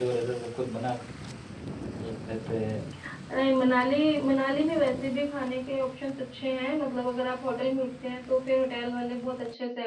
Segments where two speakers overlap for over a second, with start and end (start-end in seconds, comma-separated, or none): none